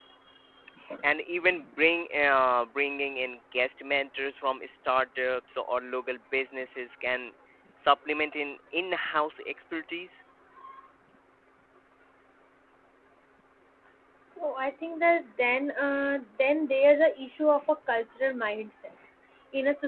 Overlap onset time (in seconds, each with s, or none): none